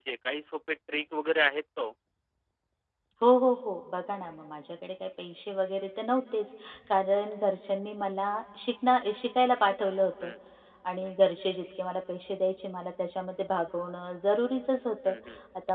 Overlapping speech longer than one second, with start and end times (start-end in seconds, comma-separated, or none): none